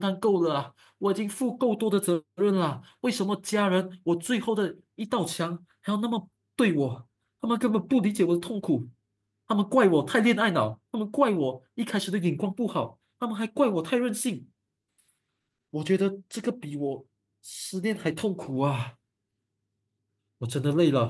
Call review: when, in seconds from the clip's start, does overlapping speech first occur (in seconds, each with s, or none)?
none